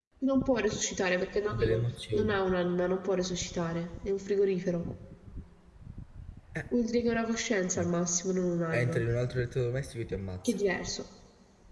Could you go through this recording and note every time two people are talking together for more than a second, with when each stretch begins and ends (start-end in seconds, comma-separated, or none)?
none